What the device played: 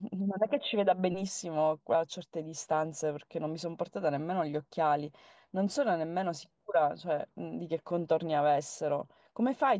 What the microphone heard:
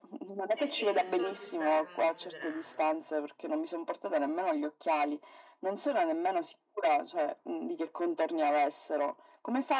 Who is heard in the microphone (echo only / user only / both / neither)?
both